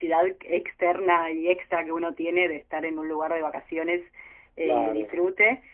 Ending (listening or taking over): listening